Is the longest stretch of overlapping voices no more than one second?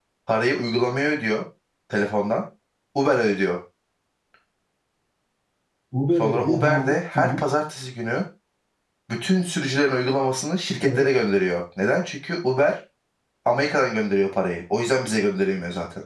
No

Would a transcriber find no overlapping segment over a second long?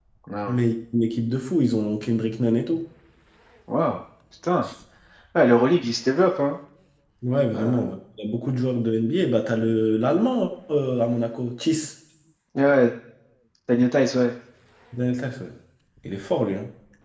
Yes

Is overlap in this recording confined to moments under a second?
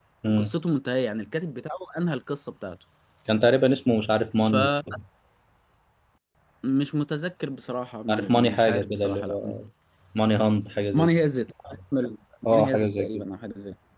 No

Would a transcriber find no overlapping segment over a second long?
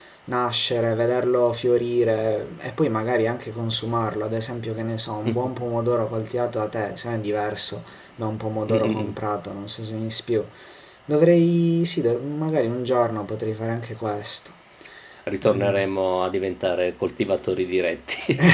Yes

